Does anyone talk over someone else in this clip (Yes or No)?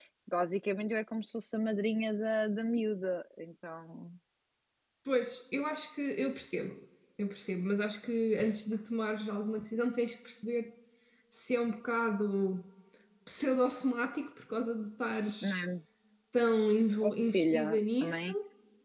Yes